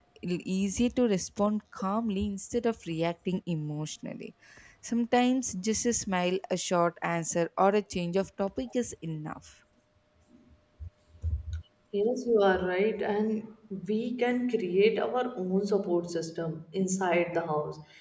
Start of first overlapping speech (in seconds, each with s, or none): none